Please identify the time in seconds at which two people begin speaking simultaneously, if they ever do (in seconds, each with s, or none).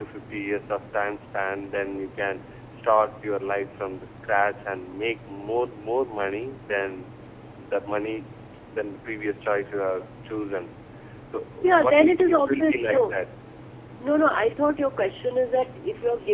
11.6 s